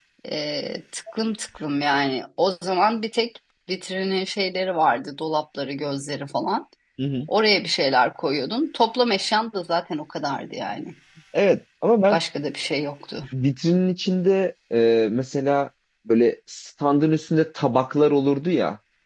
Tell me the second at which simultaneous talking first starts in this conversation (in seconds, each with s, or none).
none